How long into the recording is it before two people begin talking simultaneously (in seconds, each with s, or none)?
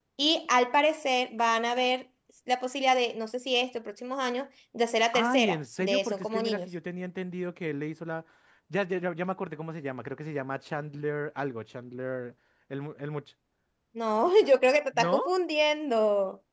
5.1 s